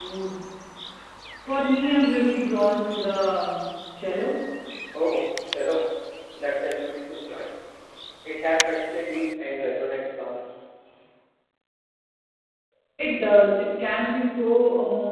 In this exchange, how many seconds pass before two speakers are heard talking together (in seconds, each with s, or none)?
none